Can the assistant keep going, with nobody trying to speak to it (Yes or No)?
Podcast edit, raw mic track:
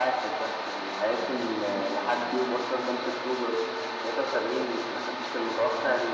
Yes